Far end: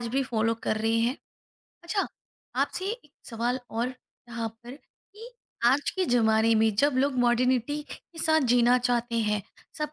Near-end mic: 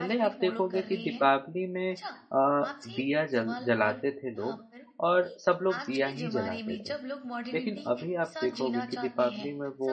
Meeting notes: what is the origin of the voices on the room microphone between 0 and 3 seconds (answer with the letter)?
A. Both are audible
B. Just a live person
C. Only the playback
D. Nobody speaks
A